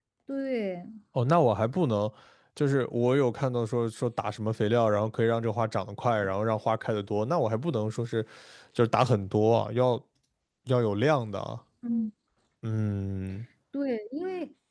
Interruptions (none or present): none